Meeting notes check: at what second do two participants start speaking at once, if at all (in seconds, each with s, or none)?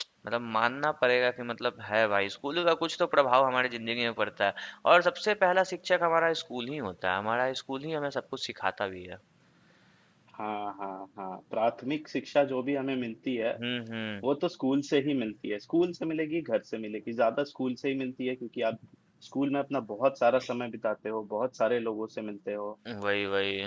none